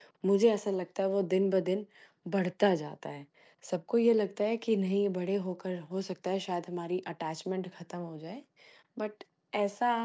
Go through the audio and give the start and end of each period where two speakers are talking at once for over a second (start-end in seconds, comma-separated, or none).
none